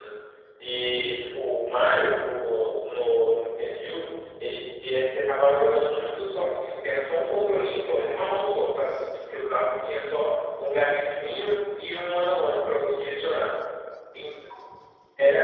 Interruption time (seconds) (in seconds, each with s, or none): none